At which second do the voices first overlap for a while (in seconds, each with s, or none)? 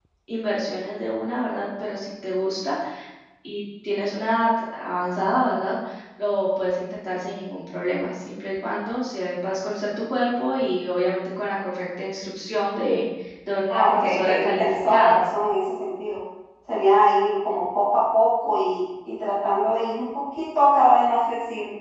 13.7 s